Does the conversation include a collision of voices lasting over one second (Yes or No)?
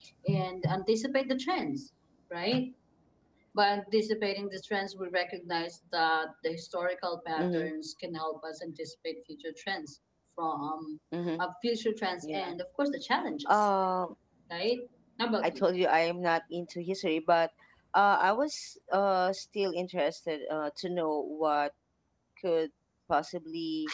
No